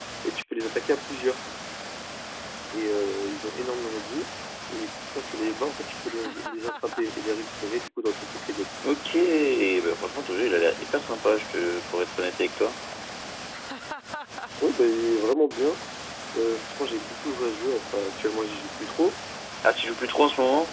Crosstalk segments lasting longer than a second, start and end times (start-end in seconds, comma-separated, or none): none